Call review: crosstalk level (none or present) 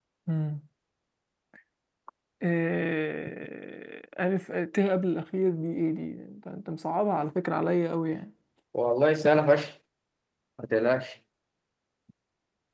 none